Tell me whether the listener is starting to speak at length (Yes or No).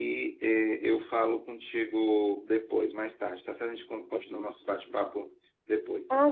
Yes